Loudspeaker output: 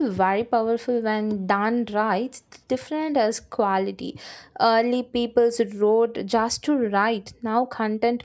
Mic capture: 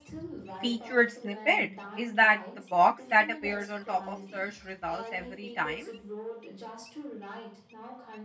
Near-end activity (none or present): present